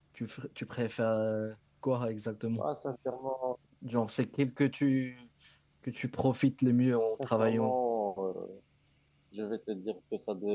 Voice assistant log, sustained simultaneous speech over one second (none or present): none